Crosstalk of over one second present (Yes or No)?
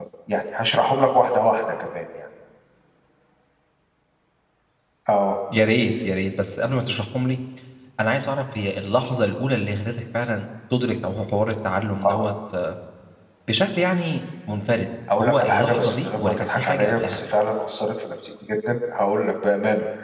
Yes